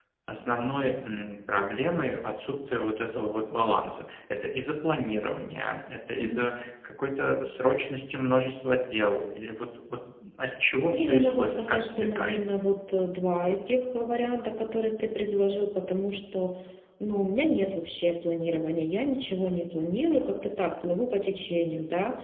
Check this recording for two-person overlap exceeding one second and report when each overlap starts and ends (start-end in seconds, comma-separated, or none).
10.9-12.4